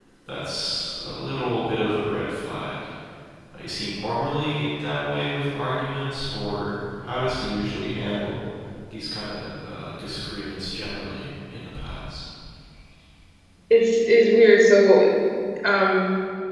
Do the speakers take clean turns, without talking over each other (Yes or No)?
Yes